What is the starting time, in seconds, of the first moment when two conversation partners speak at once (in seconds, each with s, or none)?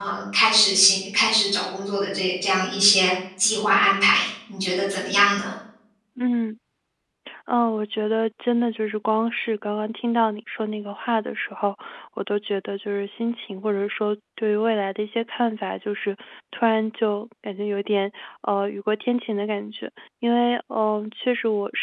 none